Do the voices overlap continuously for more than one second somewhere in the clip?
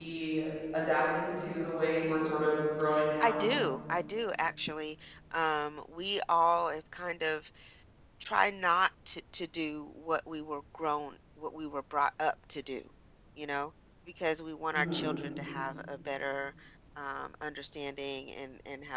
No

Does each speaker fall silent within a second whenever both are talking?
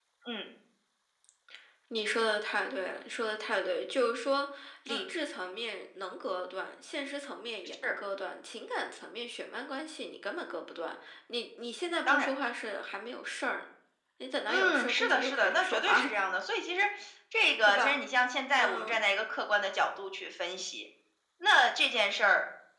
No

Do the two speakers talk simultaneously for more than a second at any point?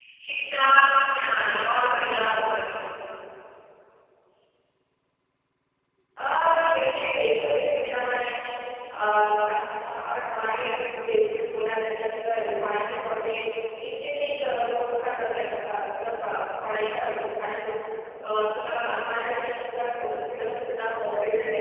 No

